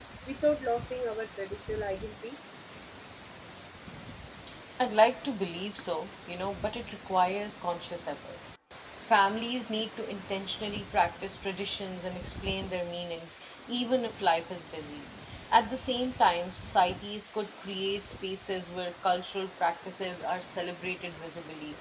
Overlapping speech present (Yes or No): No